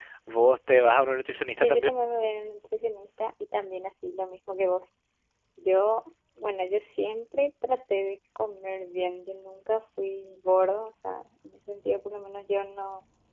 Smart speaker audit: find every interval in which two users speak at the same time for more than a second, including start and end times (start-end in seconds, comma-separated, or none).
none